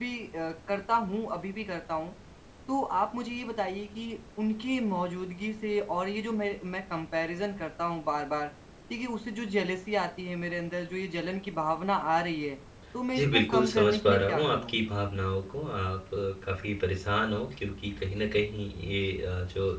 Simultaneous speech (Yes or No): Yes